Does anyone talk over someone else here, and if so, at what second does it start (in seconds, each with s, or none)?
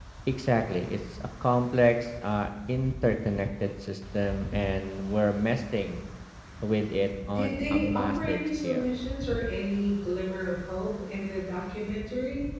7.3 s